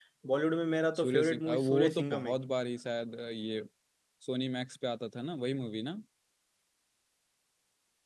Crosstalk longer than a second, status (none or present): present